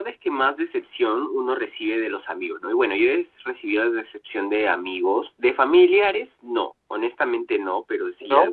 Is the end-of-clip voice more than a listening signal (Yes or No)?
No